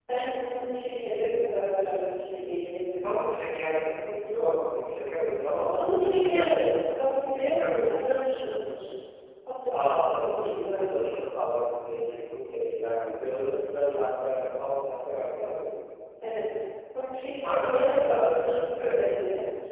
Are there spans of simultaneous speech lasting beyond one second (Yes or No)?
Yes